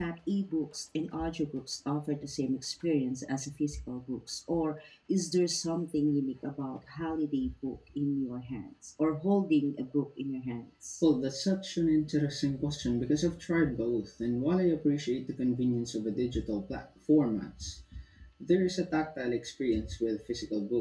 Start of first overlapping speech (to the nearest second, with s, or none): none